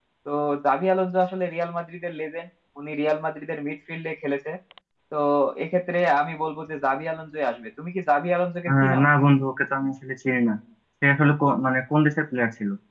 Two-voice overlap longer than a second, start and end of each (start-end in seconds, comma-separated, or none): none